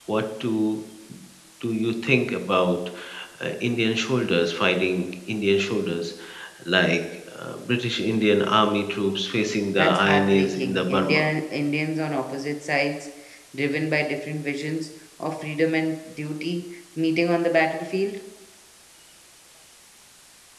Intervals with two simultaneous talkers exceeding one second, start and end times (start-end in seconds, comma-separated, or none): 9.8-11.3